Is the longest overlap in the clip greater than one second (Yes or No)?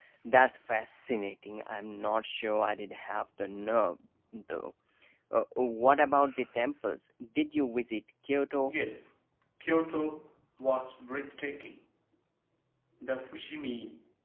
No